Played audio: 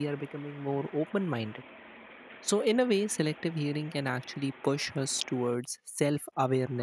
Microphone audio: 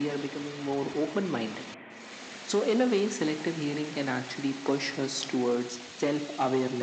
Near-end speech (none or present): none